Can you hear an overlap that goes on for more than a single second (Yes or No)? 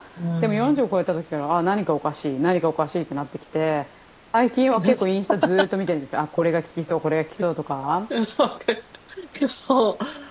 No